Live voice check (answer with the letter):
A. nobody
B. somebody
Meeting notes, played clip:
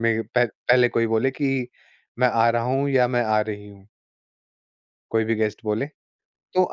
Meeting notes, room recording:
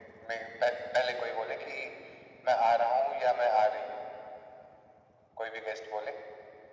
A